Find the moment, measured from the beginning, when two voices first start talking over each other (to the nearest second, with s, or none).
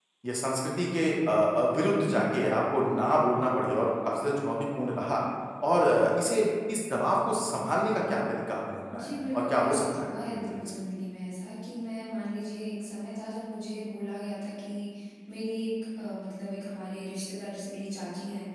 9 s